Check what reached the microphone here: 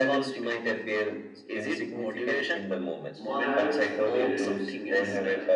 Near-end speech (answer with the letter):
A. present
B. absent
A